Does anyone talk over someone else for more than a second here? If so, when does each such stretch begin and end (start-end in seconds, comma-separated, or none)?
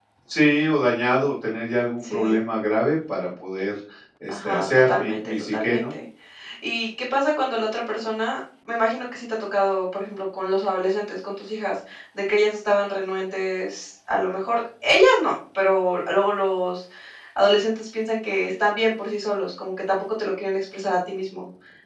4.3-5.8